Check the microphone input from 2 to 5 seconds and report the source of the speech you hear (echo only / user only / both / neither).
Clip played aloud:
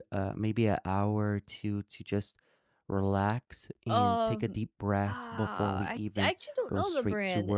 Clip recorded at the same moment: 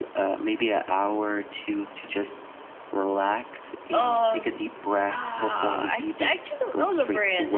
echo only